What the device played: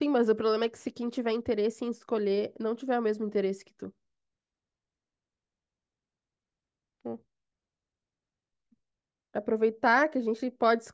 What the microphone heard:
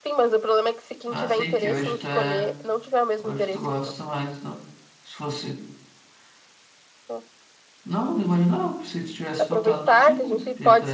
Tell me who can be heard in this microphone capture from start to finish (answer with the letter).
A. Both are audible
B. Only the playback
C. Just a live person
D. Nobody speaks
A